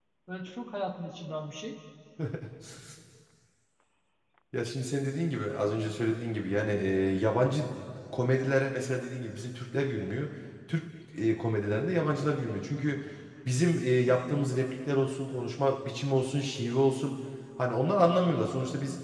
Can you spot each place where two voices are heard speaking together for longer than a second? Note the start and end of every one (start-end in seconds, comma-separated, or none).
none